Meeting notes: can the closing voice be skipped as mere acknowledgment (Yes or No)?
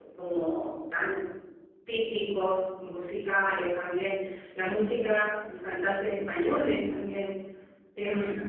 Yes